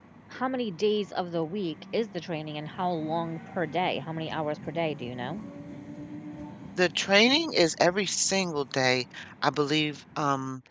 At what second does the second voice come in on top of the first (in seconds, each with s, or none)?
none